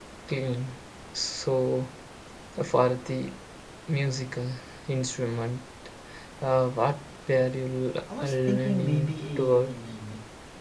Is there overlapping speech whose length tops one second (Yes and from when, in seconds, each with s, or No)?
Yes, from 8.1 s